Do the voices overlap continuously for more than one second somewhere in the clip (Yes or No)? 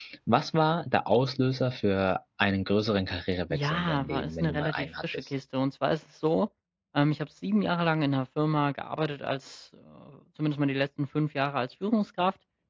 Yes